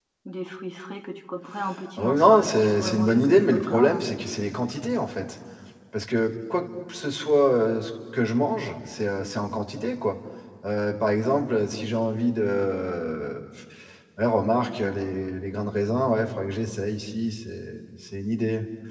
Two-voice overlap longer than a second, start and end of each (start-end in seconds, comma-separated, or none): 2.0-4.0